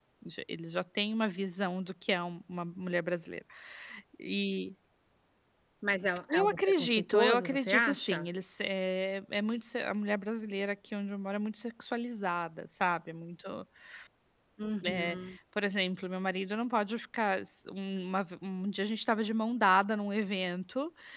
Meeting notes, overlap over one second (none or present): present